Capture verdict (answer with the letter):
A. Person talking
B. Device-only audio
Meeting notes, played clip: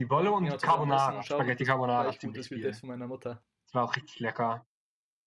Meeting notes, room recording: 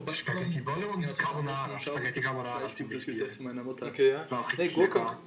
A